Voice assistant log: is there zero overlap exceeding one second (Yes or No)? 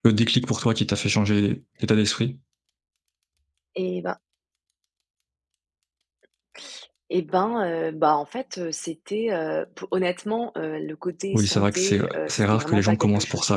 No